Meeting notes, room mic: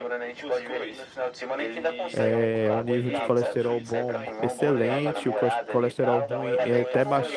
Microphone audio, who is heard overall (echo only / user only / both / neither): both